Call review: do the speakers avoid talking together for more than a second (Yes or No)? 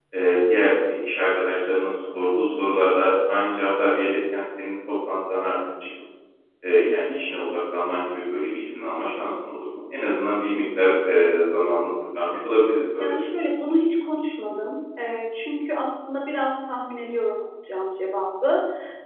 Yes